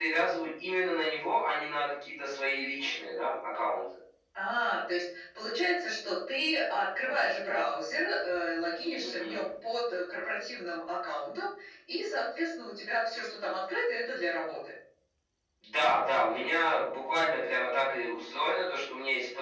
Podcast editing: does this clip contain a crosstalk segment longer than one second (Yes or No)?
No